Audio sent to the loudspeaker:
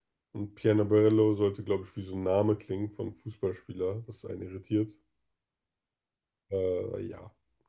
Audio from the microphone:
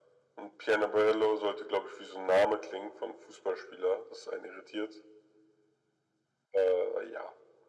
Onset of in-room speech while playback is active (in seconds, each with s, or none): none